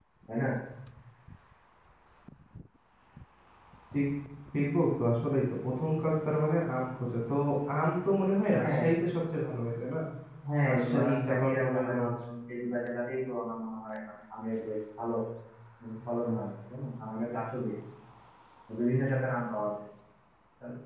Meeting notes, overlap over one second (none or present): present